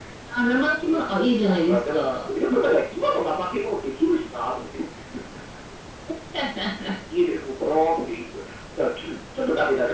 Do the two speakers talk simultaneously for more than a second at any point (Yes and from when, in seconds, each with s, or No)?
Yes, from 0.8 s